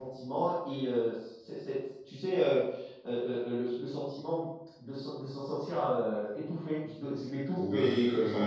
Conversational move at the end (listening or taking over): taking over